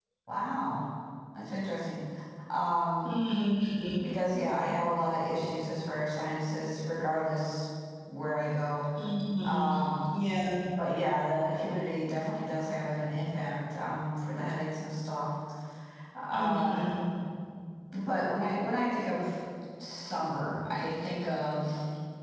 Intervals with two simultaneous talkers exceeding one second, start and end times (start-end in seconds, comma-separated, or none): none